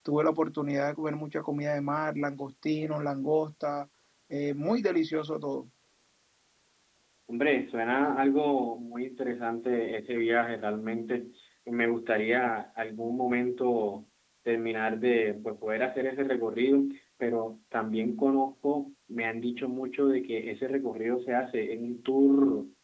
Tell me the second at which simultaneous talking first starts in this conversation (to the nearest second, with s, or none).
none